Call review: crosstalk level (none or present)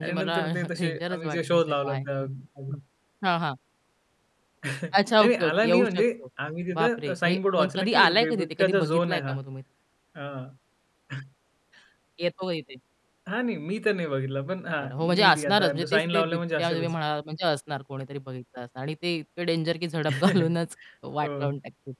present